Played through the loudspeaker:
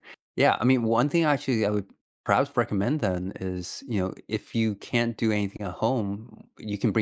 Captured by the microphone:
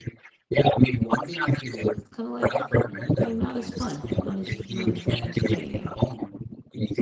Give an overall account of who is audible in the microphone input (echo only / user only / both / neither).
both